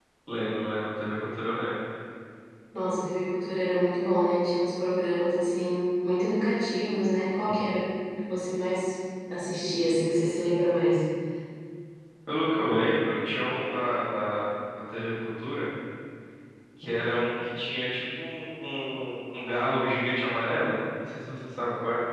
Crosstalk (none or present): none